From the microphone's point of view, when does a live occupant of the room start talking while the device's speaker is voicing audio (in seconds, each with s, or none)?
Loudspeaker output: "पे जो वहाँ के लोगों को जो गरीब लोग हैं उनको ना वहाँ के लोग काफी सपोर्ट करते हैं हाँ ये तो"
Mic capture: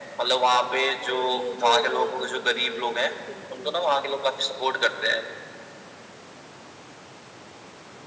1.1 s